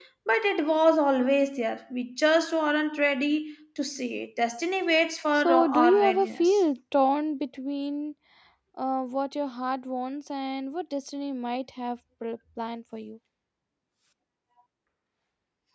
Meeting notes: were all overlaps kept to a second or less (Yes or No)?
No